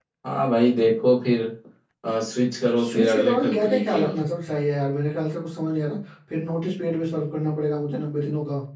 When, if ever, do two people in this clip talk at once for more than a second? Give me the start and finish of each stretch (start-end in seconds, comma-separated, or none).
2.8-4.2